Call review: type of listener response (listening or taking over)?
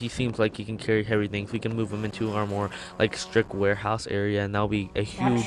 listening